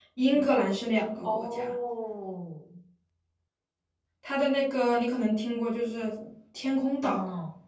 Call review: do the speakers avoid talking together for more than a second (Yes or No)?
Yes